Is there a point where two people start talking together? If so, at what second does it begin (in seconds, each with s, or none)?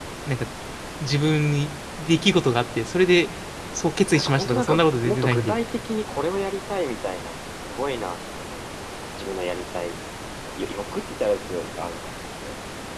4.1 s